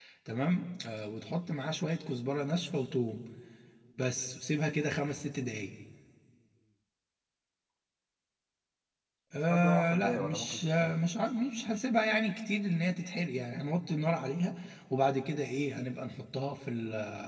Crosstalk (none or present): present